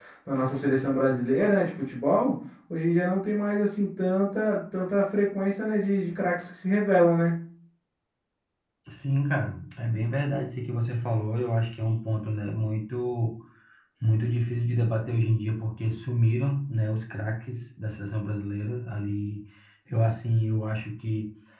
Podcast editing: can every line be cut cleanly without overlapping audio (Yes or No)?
Yes